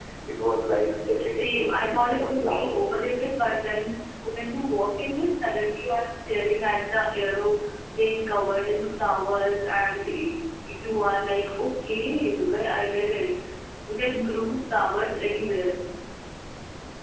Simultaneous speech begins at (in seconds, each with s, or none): 1.3 s